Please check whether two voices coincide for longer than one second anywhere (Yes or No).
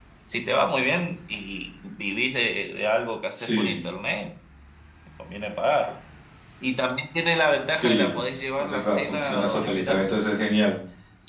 Yes